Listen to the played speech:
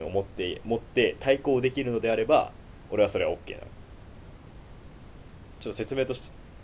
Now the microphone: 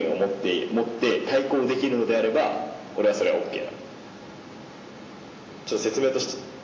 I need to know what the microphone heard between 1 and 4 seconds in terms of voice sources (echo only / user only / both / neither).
echo only